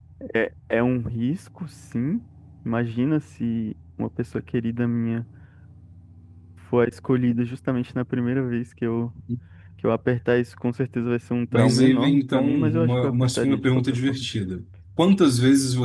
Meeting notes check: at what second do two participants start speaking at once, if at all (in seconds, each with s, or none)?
11.5 s